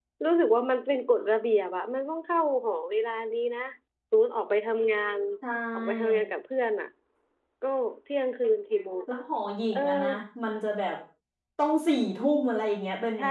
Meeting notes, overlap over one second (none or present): none